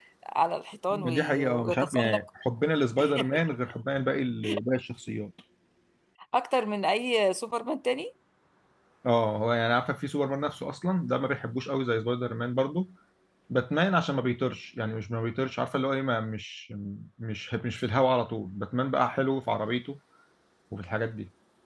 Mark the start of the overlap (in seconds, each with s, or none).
0.9 s